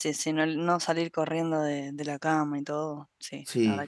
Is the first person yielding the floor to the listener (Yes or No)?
Yes